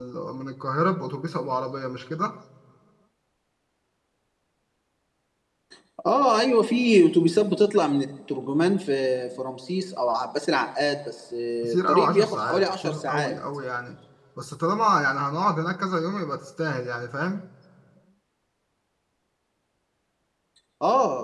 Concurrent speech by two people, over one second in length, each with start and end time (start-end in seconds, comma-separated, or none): 11.6-13.3